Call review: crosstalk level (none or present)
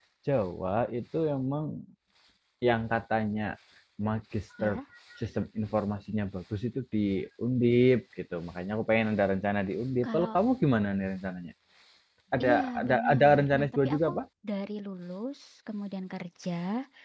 present